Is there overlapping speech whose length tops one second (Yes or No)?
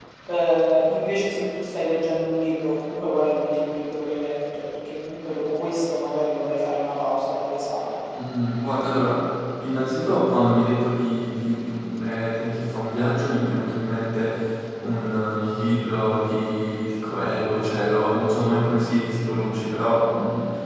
No